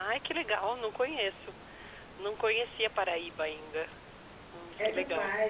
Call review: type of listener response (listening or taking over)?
taking over